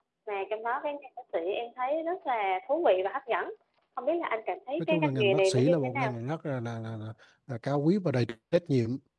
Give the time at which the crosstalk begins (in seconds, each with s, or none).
4.8 s